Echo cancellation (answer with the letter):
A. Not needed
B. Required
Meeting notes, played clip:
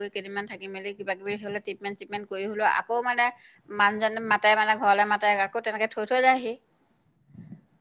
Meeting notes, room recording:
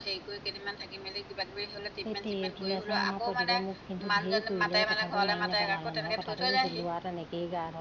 B